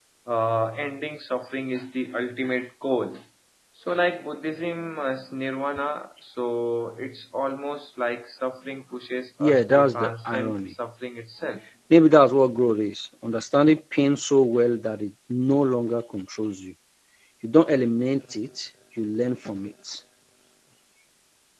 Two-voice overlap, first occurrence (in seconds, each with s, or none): 9.4 s